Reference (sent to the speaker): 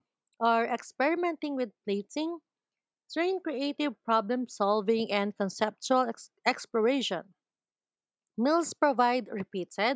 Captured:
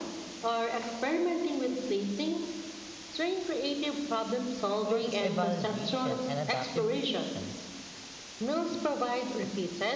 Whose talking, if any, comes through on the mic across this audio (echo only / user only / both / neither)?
both